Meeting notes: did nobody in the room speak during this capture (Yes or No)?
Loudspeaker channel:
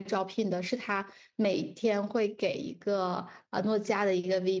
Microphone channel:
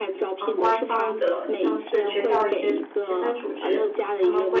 No